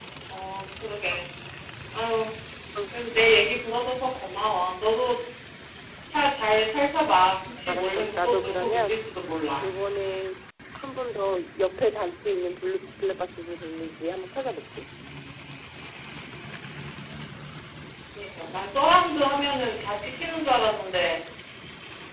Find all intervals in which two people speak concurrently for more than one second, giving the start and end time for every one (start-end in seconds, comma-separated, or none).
7.7-9.0